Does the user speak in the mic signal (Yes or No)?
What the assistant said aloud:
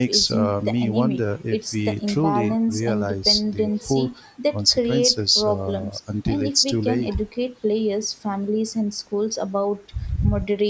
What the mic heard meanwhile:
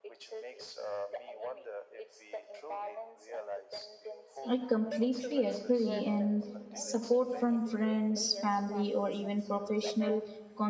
Yes